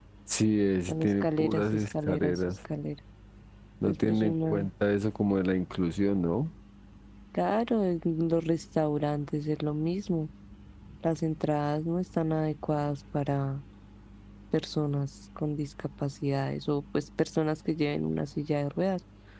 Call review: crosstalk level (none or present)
present